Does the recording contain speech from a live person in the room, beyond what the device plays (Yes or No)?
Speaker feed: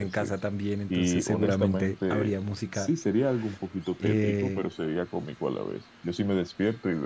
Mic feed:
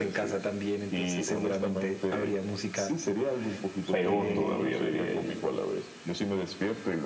Yes